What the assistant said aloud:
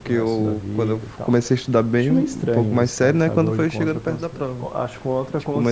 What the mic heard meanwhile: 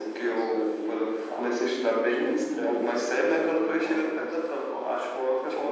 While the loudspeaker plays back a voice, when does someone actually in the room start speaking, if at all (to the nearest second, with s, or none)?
none